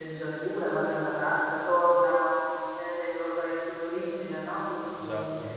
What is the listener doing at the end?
listening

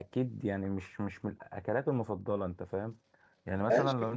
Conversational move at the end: taking over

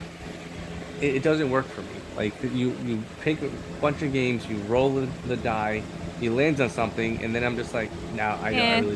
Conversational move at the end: listening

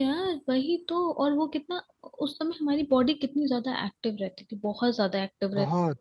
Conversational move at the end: listening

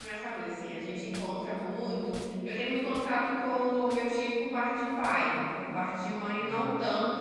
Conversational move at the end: listening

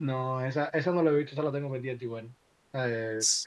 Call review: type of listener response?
listening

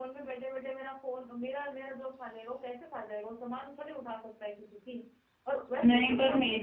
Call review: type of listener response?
taking over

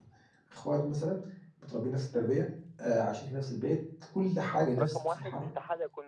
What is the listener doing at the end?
taking over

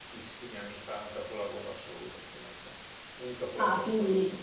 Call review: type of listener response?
taking over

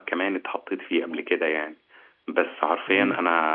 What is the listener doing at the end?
listening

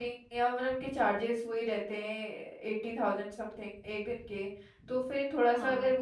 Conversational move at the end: listening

